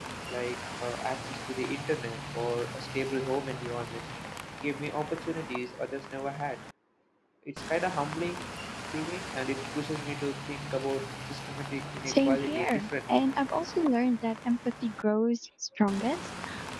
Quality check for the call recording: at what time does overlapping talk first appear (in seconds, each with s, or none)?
12.1 s